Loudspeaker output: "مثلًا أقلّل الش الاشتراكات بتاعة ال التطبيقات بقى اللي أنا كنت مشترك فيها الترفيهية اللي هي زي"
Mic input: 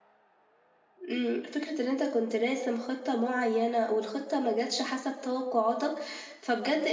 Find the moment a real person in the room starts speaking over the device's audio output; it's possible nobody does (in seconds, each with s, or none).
1.1 s